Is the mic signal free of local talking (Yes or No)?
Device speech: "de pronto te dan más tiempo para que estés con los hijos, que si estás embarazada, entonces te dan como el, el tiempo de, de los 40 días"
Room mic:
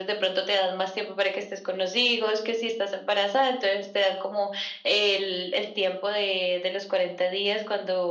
Yes